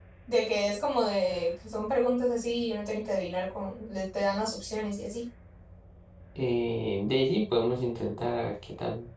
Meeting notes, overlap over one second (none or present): none